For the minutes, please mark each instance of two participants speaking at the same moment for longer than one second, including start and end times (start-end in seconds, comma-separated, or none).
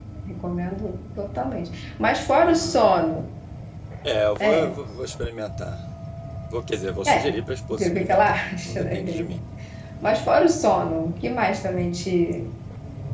7.7-9.3